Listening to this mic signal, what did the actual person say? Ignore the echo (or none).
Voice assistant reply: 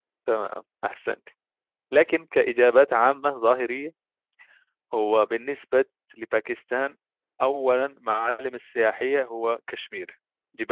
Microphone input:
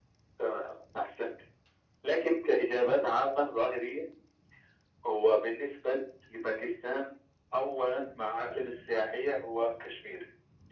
none